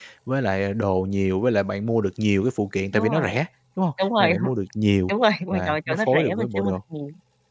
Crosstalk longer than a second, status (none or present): present